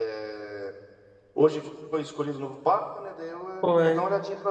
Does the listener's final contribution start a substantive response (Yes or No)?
No